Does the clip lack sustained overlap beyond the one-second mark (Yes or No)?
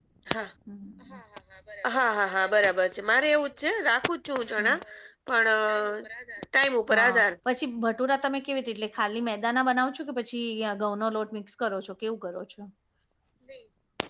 Yes